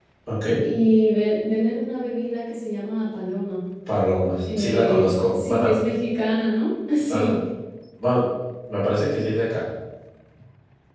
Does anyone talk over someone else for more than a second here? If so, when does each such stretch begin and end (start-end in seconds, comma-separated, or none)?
4.4-5.7